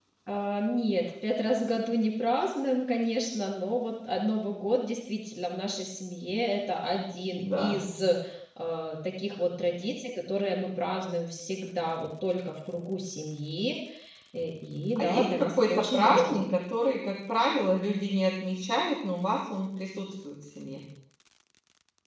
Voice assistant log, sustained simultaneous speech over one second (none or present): present